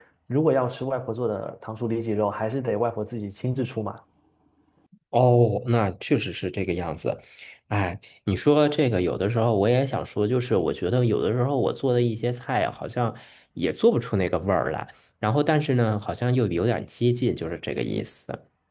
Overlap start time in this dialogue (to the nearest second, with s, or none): none